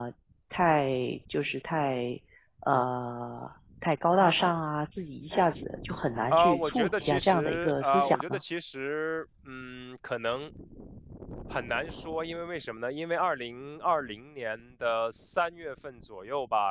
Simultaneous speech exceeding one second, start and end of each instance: 6.3-8.4

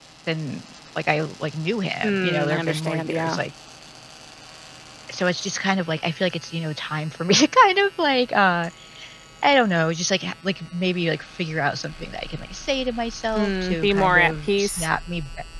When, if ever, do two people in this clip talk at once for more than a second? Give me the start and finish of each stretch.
2.0-3.4, 13.4-14.9

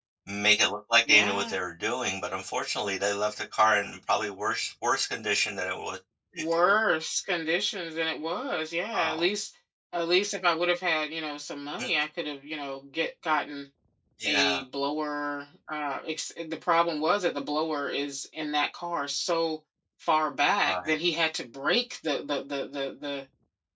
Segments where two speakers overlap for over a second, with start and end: none

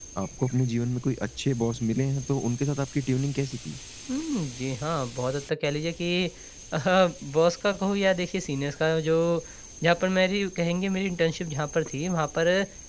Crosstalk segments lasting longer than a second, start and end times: none

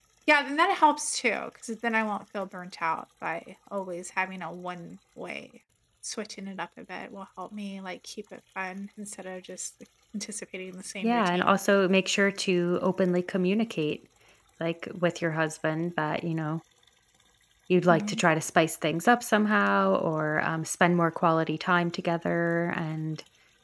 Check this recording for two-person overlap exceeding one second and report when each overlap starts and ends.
none

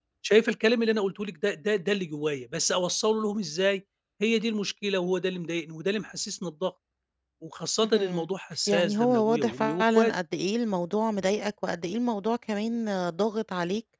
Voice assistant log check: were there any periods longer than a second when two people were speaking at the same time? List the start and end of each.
8.7-10.1

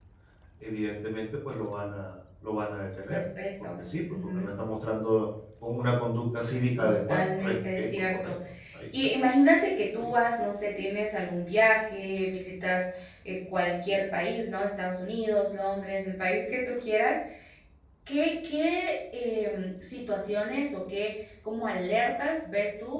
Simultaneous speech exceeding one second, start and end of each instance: 6.8-8.3

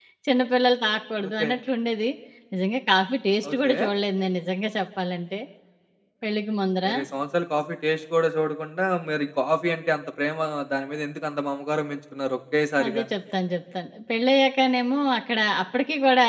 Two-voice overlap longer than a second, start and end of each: none

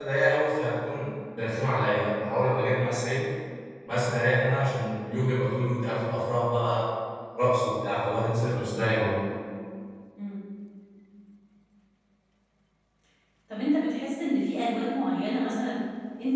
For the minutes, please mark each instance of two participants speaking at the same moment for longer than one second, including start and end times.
none

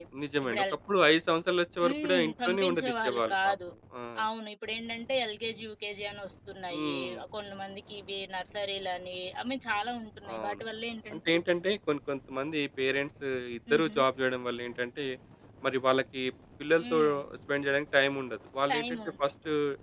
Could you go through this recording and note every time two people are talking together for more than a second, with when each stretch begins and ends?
1.9-3.5

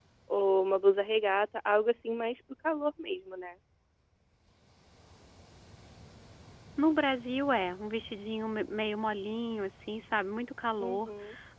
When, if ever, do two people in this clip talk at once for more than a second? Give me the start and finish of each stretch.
none

